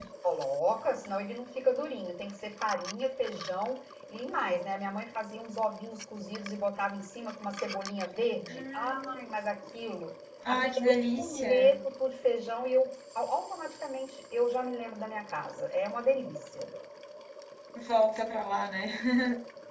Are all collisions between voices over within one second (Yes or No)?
No